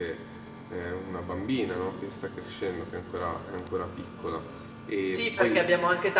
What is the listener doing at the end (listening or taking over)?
taking over